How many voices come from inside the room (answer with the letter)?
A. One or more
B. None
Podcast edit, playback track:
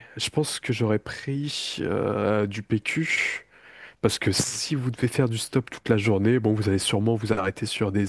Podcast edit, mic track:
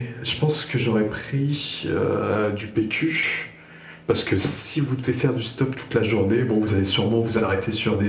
B